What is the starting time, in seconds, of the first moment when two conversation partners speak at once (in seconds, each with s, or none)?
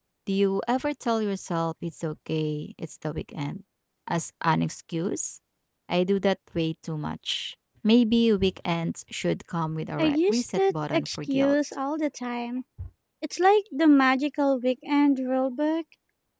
10.0 s